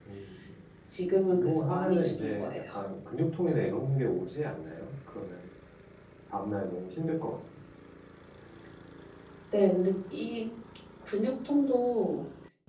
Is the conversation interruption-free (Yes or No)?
No